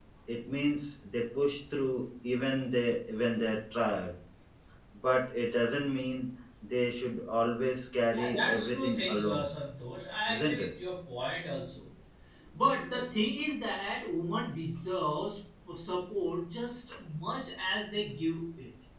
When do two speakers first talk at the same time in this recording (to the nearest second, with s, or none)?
8 s